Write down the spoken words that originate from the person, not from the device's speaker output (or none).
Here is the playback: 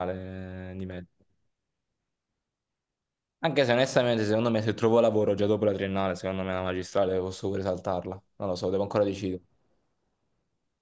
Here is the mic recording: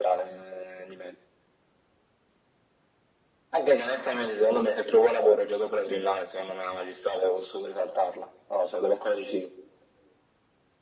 none